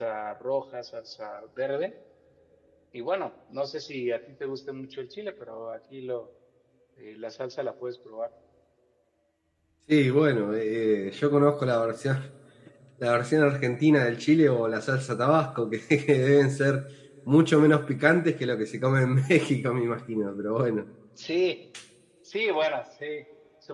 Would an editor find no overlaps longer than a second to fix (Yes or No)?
Yes